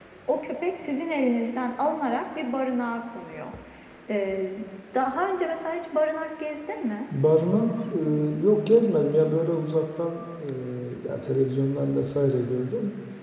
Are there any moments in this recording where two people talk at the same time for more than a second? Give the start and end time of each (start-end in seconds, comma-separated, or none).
none